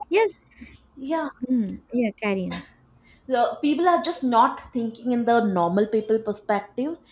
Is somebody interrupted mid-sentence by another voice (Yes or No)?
No